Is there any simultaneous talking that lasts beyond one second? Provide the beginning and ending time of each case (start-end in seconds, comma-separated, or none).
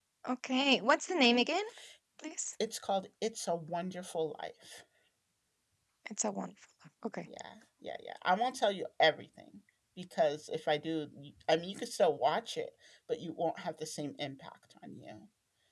none